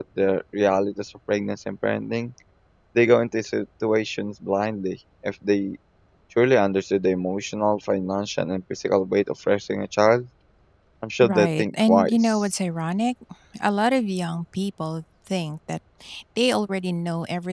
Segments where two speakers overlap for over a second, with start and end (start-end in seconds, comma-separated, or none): 11.2-12.4